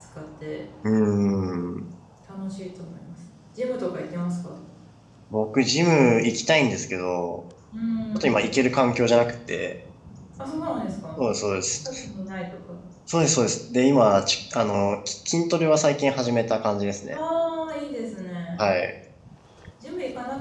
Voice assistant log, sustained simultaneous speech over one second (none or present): none